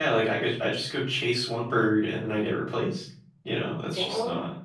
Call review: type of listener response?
listening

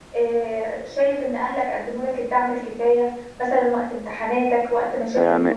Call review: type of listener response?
taking over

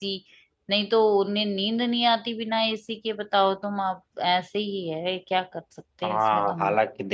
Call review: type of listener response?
taking over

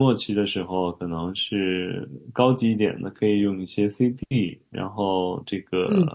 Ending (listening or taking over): listening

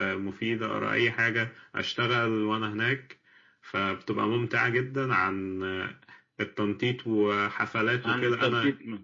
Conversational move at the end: listening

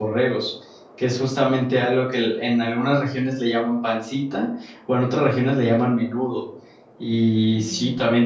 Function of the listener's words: listening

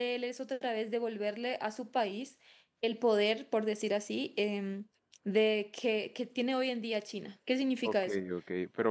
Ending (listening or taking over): taking over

